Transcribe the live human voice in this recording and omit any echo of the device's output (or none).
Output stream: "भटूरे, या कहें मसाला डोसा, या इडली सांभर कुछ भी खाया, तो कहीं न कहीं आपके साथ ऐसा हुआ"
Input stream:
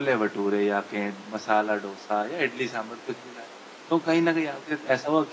none